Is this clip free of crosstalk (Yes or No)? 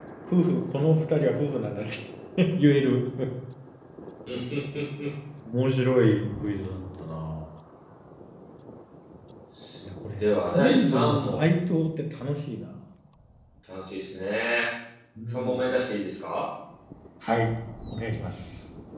No